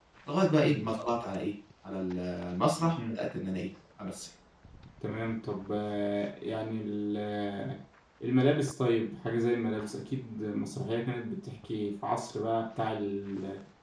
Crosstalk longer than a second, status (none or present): none